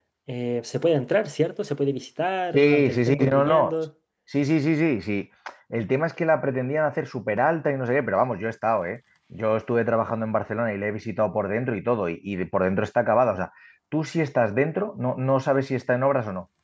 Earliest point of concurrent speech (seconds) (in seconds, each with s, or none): 2.5 s